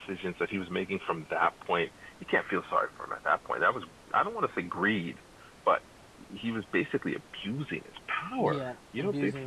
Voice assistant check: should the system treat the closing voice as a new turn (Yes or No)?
Yes